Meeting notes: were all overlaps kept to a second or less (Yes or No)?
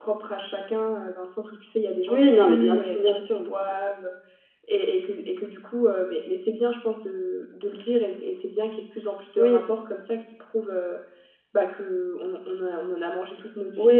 No